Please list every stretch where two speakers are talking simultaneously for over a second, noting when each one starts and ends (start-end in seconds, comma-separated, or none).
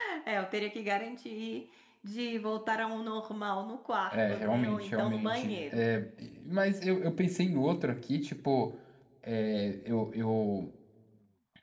4.1-5.8